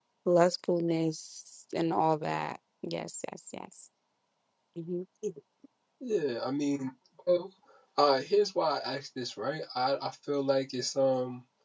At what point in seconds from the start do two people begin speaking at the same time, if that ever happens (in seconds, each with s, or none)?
none